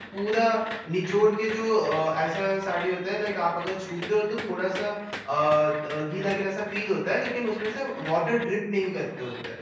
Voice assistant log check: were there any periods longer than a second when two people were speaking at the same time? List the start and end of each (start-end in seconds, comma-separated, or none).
none